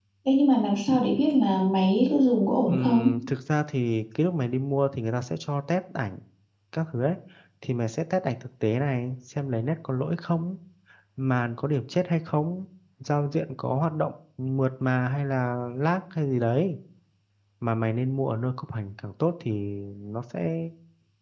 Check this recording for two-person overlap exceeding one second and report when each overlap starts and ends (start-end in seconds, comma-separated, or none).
none